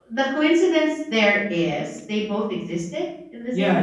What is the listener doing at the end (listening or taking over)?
taking over